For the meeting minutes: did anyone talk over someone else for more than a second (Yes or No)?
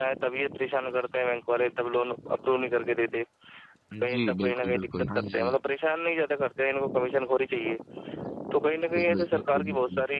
Yes